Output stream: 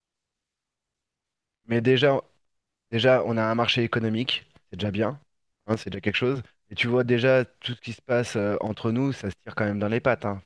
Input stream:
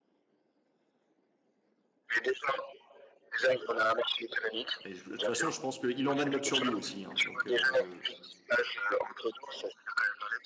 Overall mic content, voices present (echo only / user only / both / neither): both